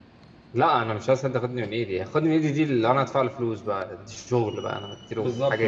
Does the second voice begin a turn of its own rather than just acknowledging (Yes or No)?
Yes